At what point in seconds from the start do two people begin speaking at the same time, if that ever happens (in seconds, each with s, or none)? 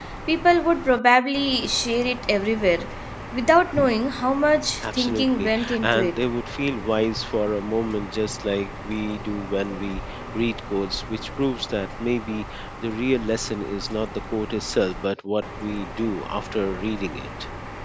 4.7 s